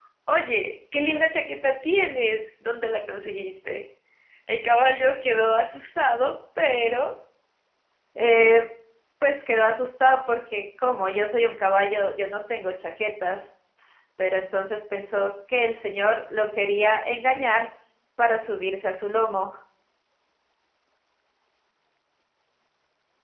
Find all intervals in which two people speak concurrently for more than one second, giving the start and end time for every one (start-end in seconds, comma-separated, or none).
none